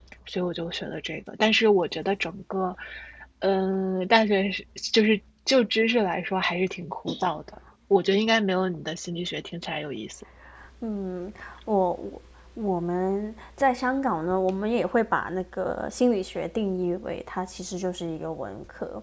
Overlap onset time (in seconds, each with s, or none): none